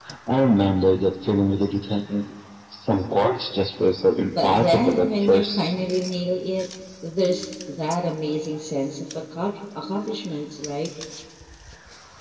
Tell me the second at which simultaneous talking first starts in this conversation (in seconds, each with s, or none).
4.3 s